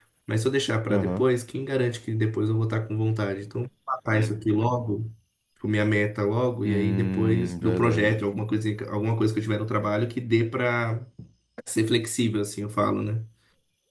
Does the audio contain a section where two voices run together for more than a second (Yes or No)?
Yes